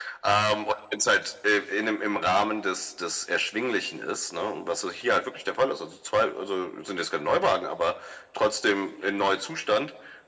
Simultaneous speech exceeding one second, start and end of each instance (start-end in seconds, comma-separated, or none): none